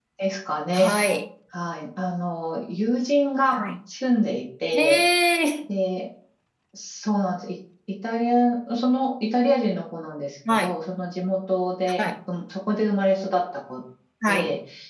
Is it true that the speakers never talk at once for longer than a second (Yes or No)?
Yes